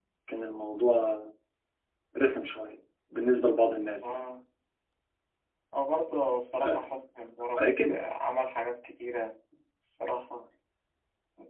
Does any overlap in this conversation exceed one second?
No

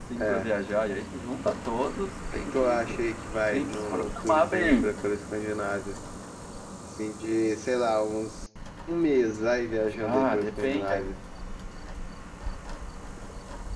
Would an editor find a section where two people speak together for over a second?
Yes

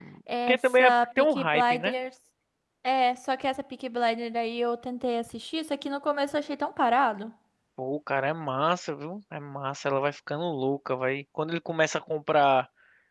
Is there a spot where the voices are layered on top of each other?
Yes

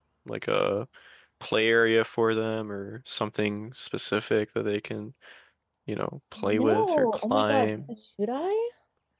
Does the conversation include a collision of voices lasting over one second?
Yes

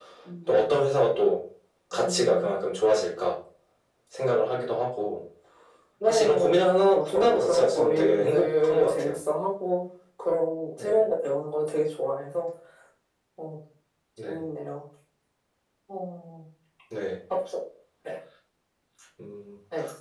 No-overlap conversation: No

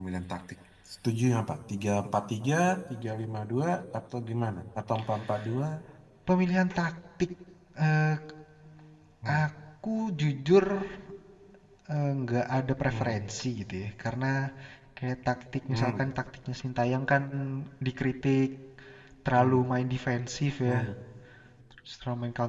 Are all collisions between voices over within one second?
Yes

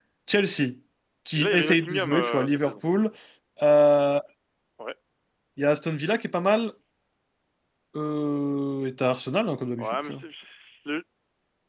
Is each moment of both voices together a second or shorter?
No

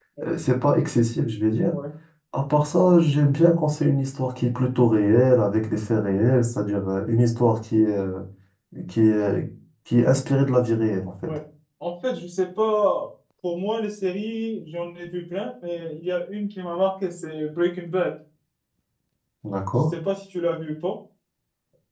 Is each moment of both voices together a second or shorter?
Yes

